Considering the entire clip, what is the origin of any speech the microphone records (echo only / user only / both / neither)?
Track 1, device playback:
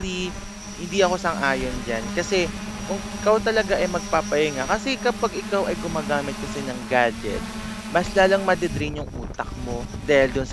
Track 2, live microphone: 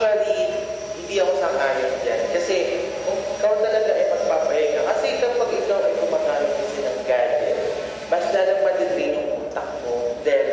echo only